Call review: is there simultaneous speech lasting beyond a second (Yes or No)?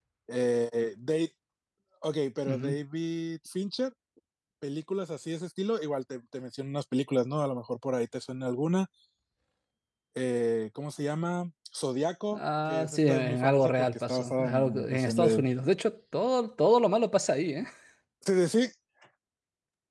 Yes